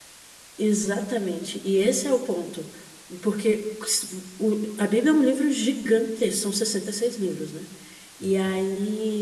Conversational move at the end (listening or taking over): listening